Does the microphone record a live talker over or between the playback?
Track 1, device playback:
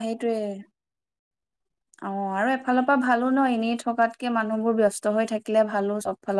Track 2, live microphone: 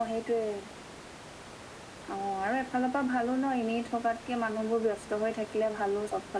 No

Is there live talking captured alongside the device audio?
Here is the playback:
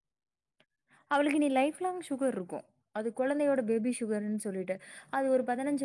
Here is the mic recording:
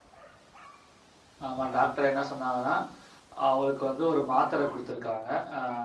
Yes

